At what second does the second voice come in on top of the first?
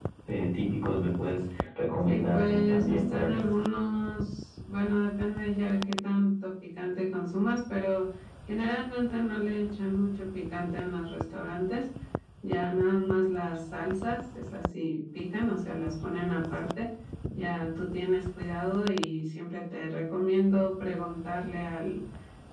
2.0 s

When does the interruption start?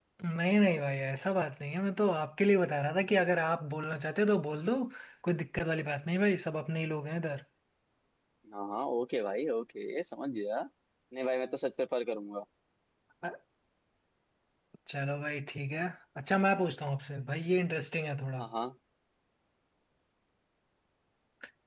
none

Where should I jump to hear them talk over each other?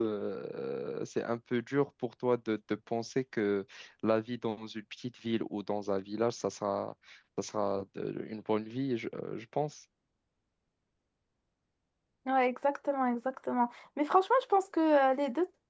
none

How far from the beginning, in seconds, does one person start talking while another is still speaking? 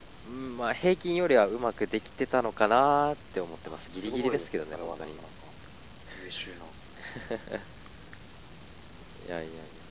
3.7 s

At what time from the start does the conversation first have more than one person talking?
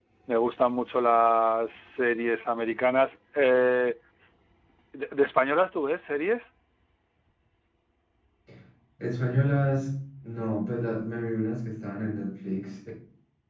none

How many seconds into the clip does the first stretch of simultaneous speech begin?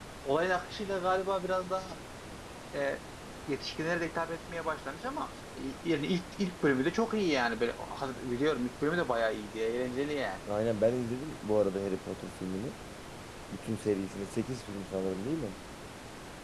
none

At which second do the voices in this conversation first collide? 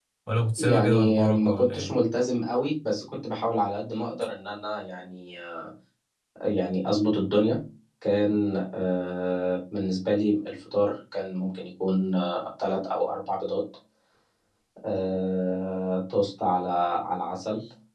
0.6 s

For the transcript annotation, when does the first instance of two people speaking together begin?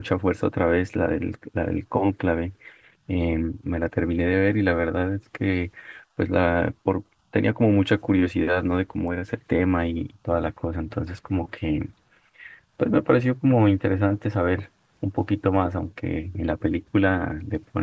none

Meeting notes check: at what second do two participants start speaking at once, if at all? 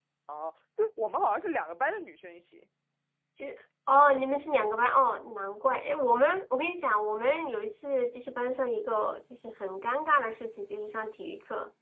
none

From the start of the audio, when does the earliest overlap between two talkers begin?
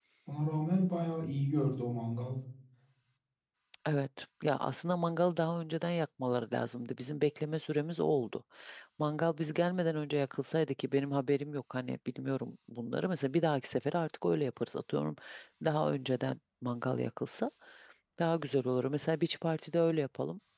none

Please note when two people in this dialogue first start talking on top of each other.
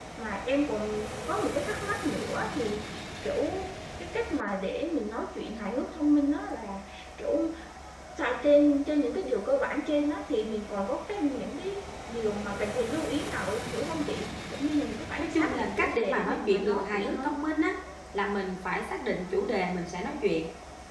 15.2 s

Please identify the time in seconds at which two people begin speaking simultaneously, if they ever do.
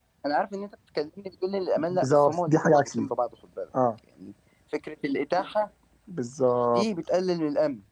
1.8 s

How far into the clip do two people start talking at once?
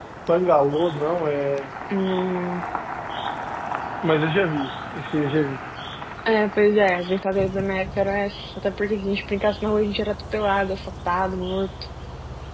none

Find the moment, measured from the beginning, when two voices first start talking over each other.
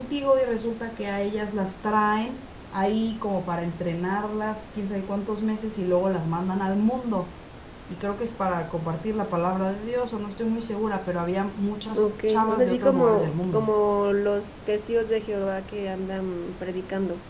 11.9 s

